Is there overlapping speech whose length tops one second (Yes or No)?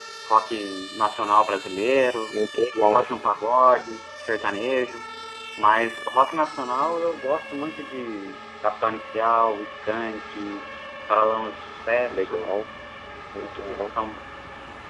No